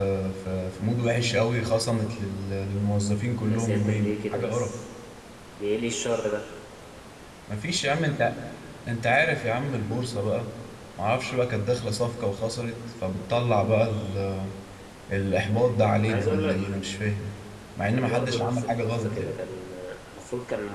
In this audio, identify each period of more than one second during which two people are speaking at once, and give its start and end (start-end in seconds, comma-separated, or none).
3.5-4.8, 17.9-19.4